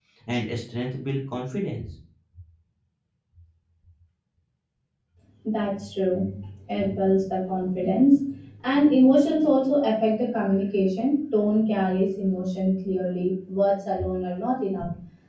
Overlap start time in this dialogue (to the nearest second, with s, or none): none